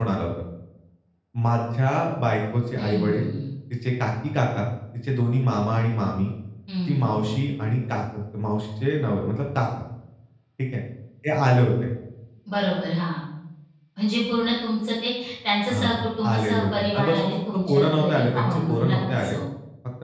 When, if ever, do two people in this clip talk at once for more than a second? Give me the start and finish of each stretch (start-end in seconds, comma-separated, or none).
16.3-19.4